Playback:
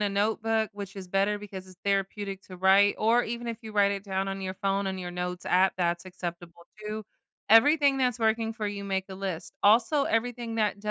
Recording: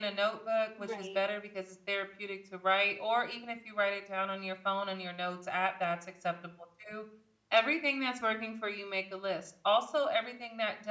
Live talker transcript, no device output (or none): Right.